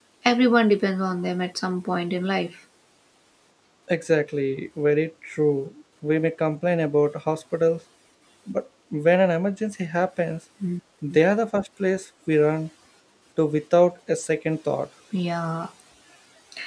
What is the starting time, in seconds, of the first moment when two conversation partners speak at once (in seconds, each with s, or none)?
none